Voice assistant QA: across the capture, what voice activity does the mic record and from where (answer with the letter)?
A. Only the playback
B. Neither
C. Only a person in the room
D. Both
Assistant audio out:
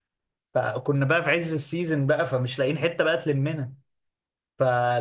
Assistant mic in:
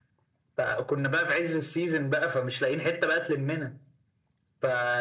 A